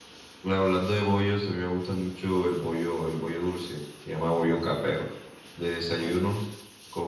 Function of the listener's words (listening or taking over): listening